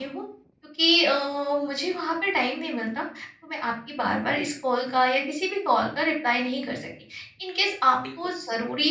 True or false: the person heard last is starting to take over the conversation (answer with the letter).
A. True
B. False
B